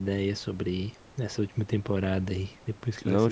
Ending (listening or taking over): taking over